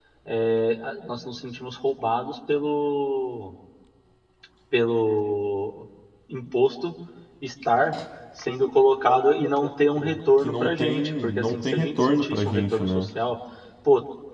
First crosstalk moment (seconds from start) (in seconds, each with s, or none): 10.4 s